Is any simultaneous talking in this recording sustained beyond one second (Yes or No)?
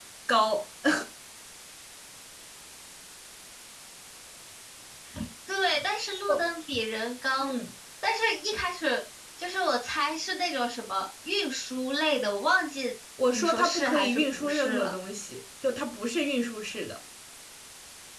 Yes